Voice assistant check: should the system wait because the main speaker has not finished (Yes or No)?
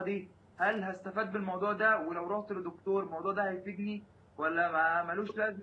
Yes